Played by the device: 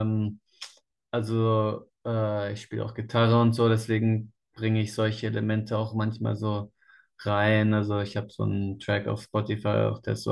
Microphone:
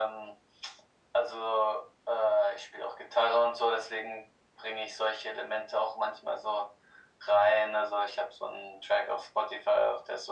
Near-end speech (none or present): none